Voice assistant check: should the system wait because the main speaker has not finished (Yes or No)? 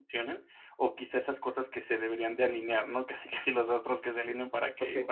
Yes